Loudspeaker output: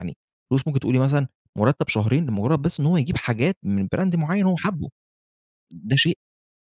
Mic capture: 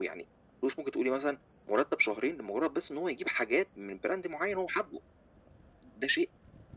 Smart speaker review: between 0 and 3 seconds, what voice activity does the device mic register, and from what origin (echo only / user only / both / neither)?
echo only